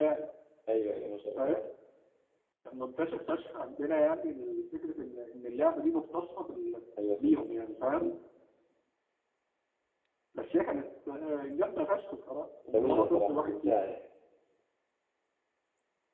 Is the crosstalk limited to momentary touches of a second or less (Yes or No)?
No